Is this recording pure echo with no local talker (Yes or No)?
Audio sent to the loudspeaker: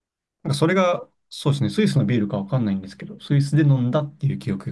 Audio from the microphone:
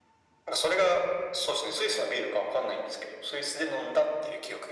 Yes